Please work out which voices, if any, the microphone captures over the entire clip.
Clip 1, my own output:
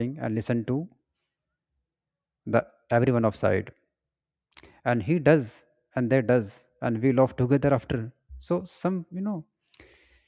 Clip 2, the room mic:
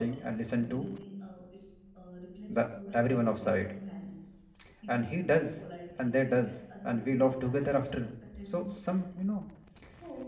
both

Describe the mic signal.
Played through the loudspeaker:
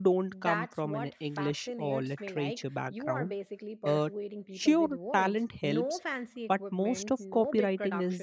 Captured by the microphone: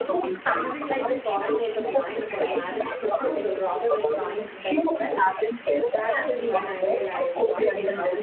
both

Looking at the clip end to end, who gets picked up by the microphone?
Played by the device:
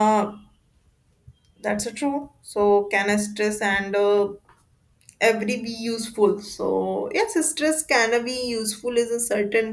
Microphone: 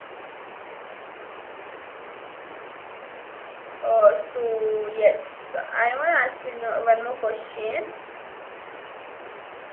user only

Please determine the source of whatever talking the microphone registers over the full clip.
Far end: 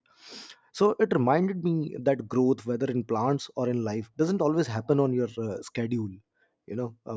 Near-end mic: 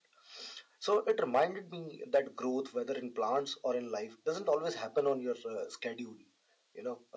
echo only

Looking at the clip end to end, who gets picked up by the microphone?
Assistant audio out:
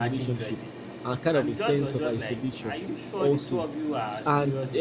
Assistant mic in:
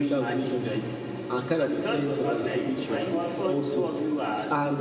both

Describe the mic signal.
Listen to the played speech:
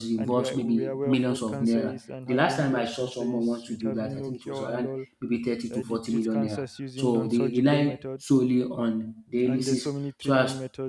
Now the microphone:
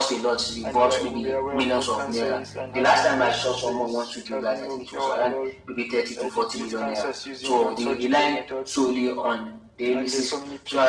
echo only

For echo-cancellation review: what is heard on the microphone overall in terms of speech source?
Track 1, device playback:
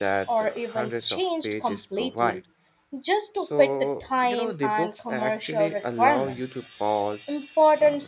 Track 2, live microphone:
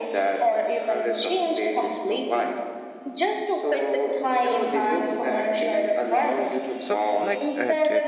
both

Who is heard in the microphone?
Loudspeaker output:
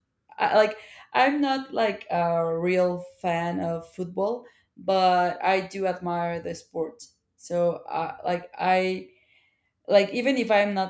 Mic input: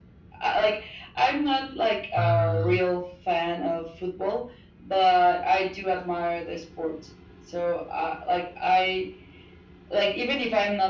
both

